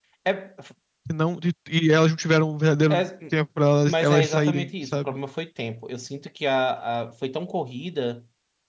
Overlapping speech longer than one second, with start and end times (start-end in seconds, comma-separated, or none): 3.8-5.1